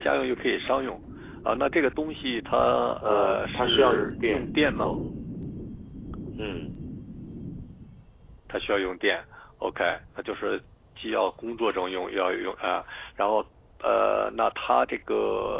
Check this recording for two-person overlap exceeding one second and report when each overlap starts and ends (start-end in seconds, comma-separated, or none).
3.0-4.9